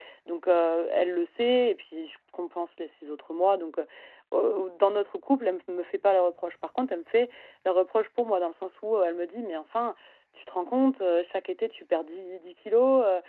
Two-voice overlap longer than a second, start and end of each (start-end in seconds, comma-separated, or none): none